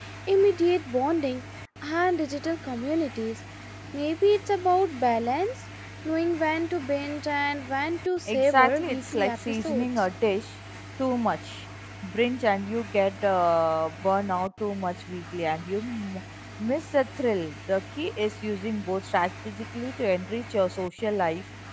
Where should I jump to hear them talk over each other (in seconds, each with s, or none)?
8.3 s